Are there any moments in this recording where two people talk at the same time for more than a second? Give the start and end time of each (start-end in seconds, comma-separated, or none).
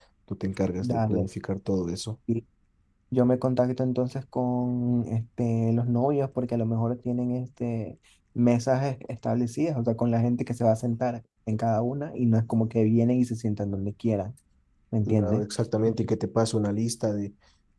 none